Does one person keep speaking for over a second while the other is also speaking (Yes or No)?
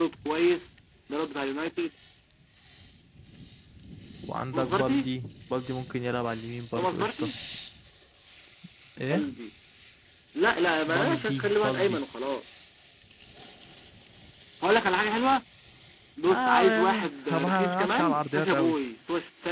Yes